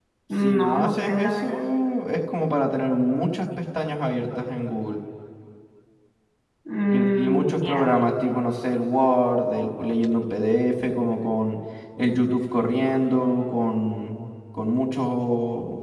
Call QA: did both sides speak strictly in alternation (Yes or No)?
No